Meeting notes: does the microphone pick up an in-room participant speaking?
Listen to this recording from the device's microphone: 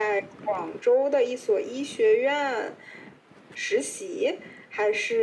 No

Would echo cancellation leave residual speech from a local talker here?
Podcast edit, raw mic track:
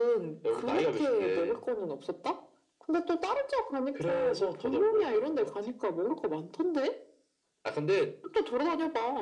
No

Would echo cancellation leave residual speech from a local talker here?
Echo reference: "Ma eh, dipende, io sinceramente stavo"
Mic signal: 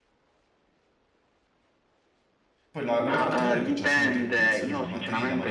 Yes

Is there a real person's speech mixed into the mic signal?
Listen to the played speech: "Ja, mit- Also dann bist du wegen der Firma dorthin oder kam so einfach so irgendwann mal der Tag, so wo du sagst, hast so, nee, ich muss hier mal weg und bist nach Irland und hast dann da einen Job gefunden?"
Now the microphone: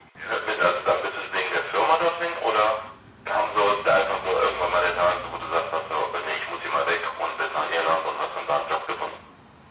No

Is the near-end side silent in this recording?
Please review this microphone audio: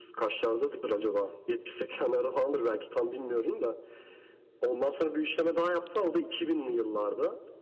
Yes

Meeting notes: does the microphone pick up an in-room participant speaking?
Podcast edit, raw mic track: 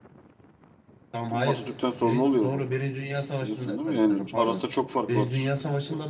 Yes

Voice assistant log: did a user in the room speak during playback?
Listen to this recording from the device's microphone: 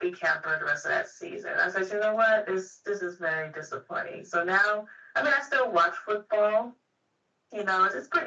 No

